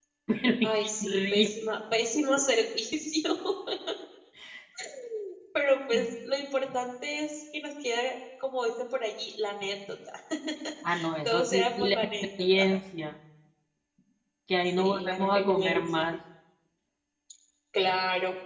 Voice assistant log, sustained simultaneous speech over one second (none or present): present